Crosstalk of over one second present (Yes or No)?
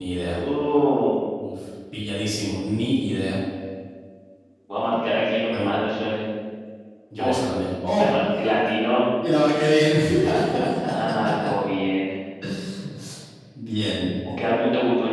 No